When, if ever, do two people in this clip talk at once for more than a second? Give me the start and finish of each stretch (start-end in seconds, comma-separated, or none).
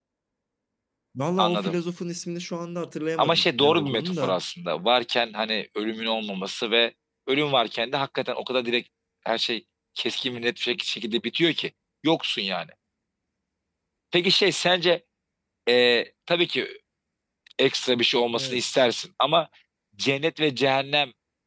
3.2-4.4